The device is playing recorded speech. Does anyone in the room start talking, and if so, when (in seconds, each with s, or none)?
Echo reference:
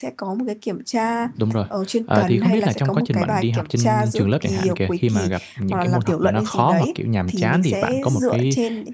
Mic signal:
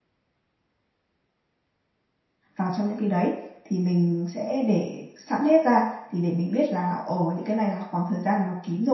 2.6 s